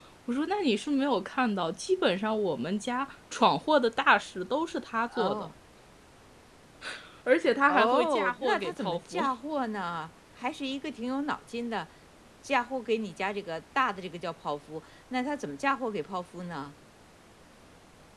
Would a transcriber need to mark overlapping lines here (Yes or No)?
Yes